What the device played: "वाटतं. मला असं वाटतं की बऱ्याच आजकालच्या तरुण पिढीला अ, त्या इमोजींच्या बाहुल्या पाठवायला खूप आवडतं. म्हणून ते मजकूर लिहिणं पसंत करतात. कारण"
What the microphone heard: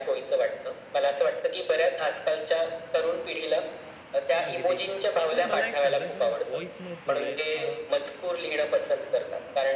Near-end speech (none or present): present